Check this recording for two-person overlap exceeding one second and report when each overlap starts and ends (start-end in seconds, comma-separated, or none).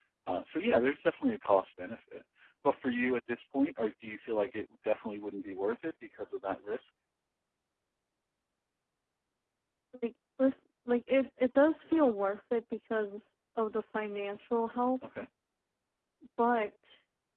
none